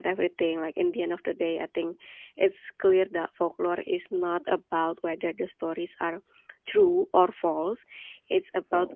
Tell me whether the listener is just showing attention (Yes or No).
Yes